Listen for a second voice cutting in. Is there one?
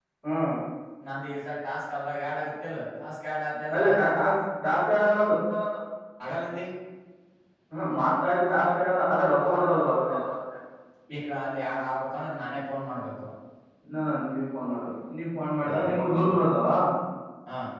Yes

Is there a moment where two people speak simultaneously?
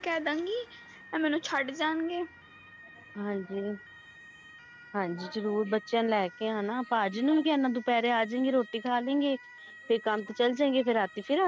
No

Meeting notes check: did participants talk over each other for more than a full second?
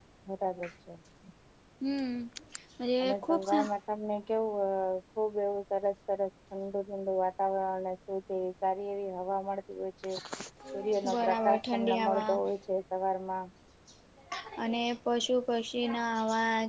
Yes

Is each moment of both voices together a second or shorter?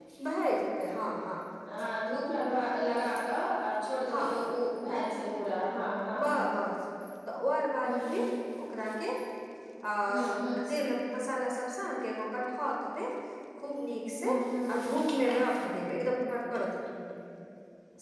Yes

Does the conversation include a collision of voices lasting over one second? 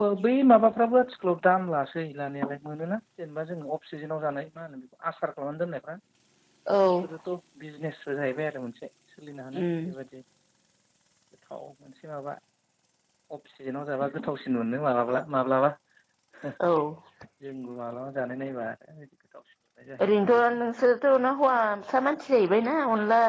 No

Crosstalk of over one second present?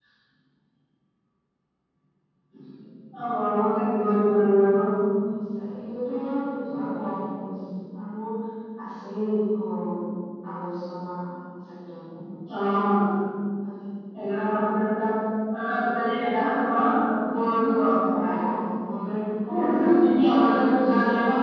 No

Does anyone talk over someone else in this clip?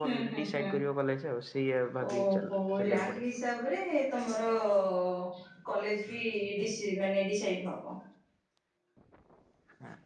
Yes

